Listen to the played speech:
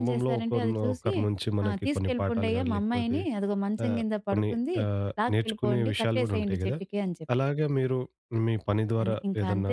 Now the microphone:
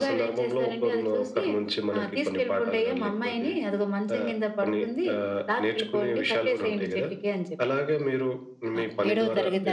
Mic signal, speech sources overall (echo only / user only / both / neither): both